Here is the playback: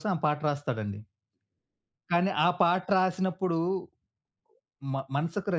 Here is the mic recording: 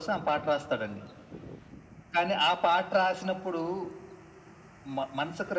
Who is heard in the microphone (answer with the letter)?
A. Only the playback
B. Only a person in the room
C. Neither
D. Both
A